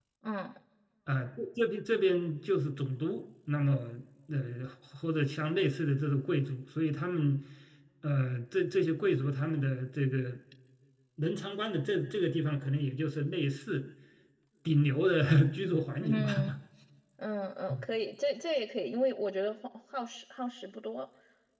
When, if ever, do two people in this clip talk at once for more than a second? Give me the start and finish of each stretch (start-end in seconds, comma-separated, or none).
none